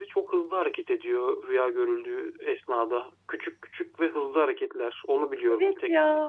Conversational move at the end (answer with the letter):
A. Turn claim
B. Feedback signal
A